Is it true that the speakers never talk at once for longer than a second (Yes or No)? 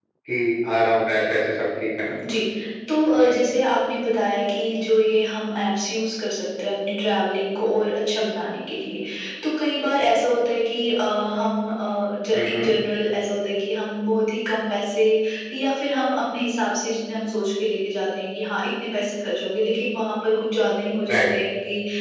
Yes